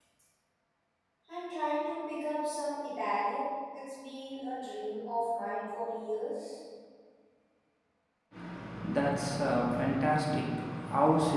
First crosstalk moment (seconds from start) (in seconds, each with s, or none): none